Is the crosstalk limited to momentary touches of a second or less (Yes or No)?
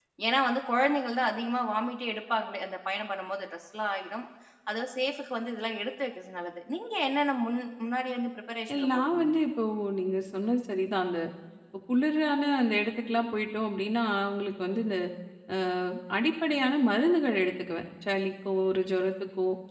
Yes